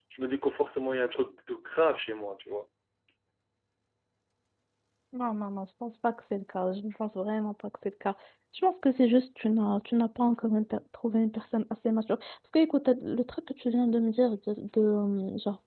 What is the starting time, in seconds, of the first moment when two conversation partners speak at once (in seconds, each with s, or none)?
none